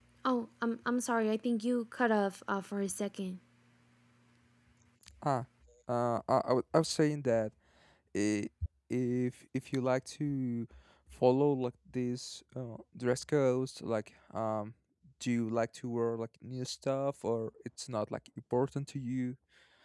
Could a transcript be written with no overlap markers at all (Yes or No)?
Yes